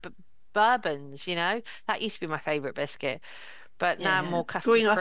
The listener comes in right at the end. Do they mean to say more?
Yes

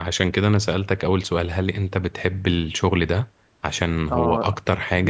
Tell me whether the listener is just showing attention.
No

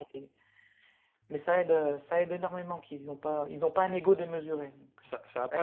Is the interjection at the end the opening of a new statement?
Yes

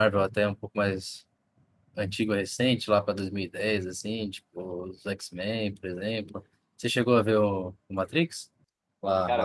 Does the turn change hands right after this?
Yes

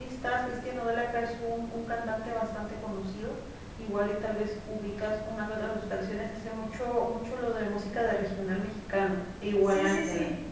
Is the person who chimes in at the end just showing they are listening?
No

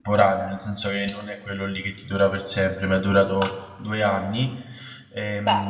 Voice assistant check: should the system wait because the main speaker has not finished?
Yes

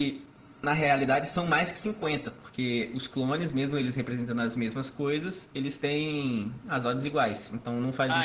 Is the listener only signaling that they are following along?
No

